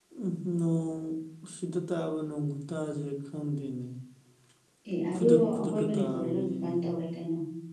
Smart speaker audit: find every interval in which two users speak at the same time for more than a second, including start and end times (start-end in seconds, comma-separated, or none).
5.1-6.8